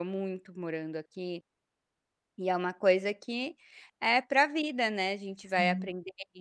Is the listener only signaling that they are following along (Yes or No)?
Yes